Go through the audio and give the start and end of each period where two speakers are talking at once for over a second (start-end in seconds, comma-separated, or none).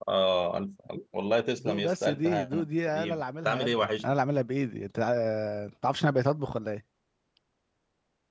1.6-4.2